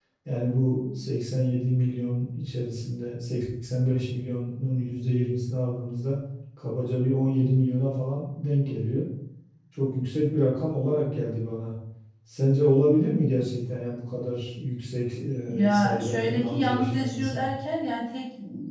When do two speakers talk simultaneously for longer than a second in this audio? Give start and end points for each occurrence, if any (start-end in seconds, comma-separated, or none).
15.5-17.5